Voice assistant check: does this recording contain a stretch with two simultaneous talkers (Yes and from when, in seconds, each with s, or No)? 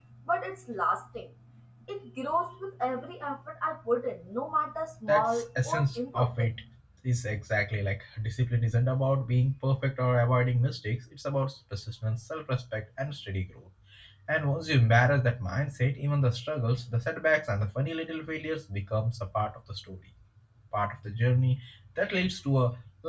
Yes, from 5.1 s